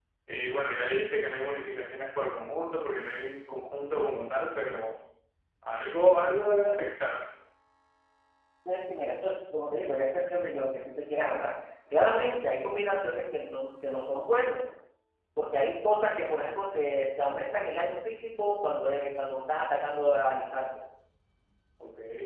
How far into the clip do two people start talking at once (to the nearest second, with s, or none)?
none